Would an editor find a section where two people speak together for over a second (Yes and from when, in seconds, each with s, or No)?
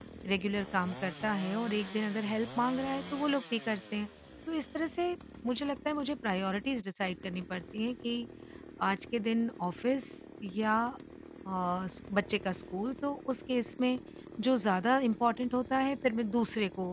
No